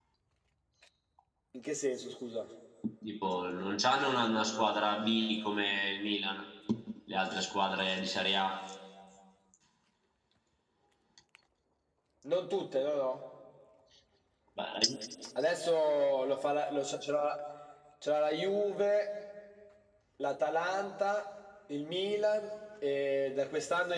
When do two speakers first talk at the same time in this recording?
none

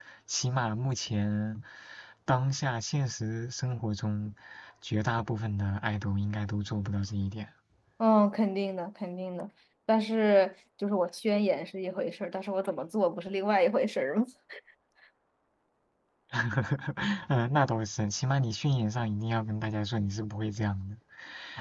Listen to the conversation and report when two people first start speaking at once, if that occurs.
none

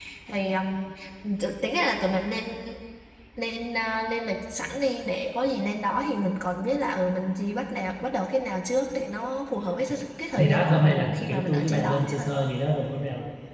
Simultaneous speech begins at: 10.4 s

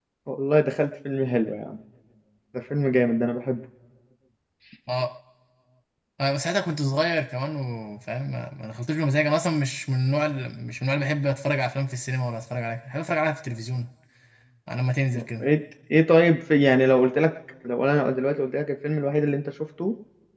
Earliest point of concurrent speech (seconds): none

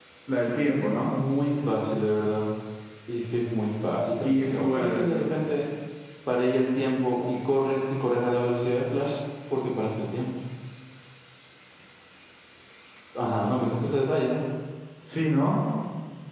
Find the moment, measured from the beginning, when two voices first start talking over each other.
4.2 s

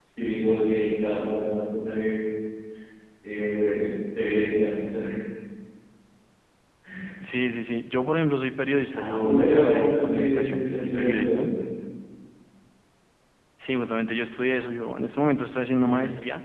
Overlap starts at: 8.9 s

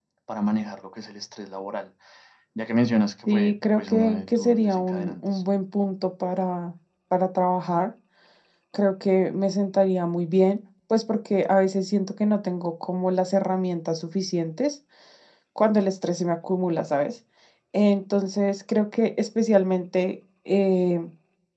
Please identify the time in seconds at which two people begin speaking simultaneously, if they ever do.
3.3 s

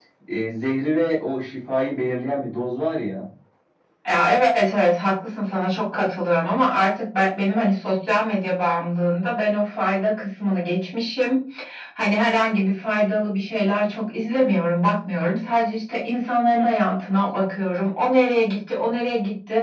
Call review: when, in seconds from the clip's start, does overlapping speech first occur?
none

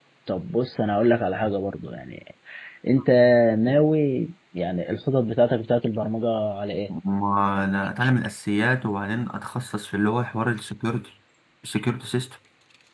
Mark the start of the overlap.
none

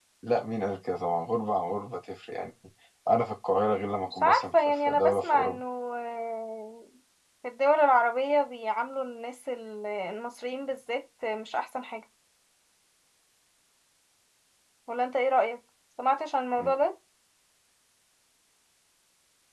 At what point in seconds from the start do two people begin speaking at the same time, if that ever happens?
4.2 s

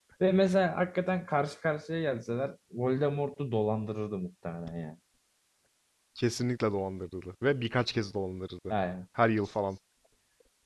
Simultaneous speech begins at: none

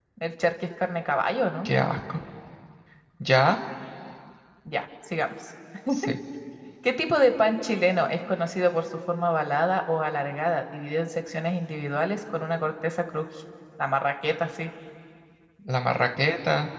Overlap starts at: none

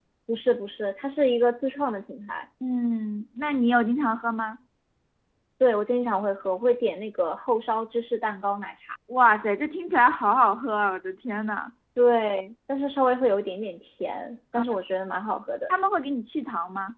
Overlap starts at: none

